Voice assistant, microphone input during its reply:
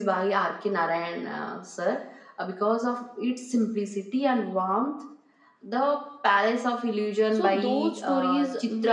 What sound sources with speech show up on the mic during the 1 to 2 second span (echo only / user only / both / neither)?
echo only